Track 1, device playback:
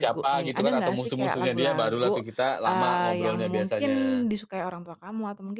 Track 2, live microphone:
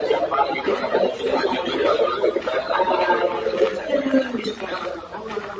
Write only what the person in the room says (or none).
none